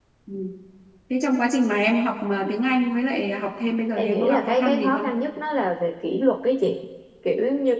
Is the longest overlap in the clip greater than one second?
Yes, from 4.0 s

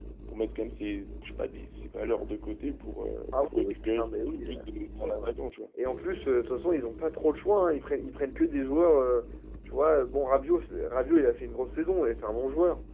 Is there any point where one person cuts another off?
Yes, from 3.3 s

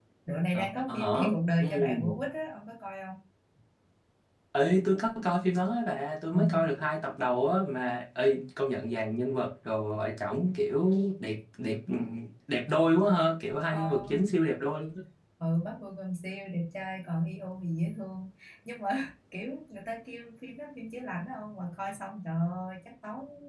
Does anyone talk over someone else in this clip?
Yes, from 0.5 s

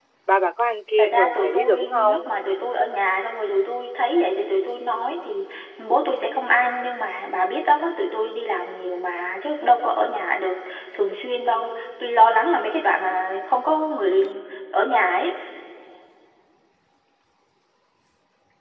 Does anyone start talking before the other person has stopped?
Yes, from 1.0 s

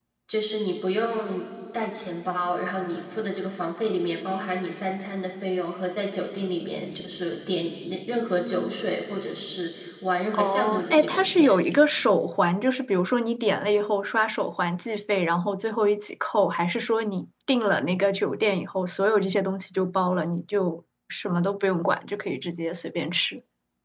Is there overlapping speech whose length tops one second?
Yes, from 10.3 s

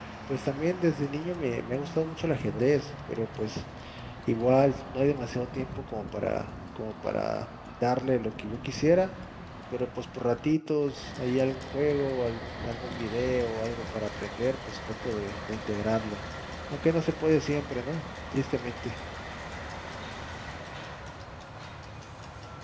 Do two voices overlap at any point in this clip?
No

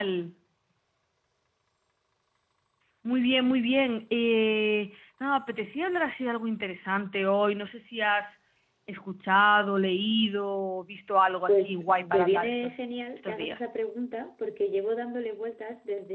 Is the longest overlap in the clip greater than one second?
Yes, from 11.5 s

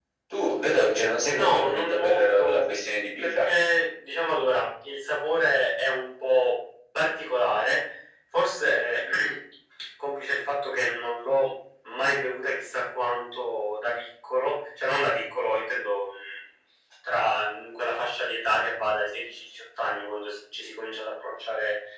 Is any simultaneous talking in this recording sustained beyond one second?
Yes, from 1.3 s

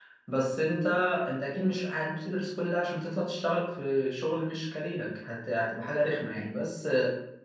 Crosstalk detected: No

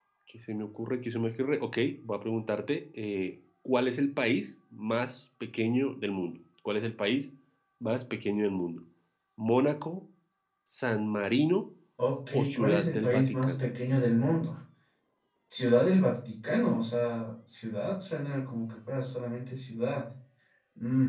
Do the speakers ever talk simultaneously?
Yes, from 12.3 s

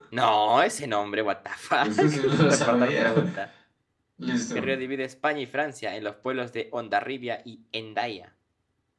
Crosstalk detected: Yes, from 1.8 s

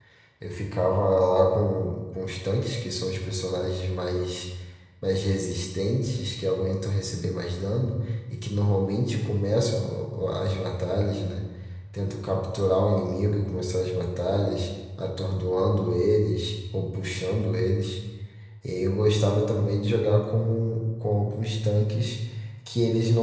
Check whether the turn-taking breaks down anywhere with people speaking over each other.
No

